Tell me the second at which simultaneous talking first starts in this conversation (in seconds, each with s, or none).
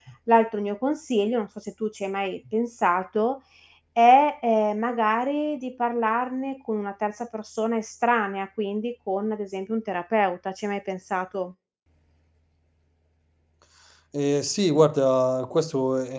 none